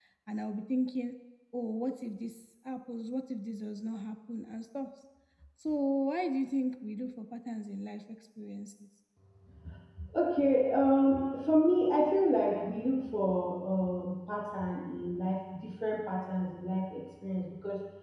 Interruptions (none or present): none